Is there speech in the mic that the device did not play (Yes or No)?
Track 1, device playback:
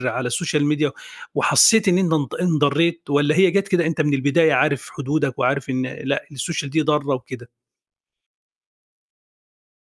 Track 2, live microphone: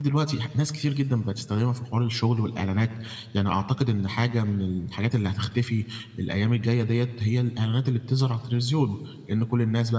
Yes